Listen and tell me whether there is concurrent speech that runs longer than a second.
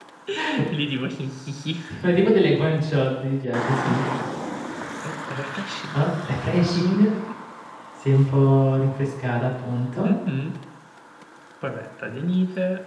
No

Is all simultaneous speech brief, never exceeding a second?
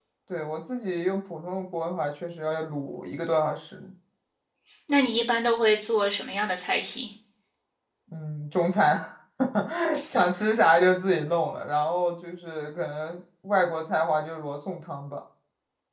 Yes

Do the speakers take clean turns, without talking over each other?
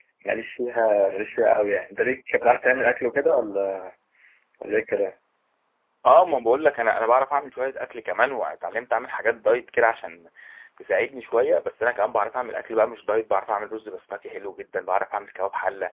Yes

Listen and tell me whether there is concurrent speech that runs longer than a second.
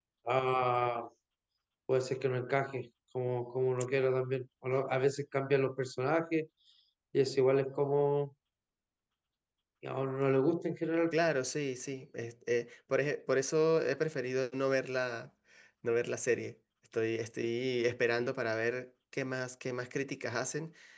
No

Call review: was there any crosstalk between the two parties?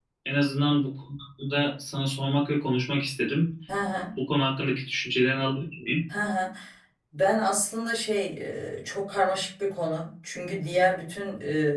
No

